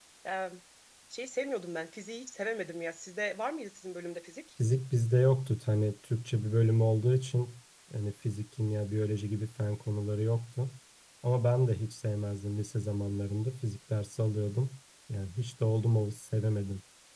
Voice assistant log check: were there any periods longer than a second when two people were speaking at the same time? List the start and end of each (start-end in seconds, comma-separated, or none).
none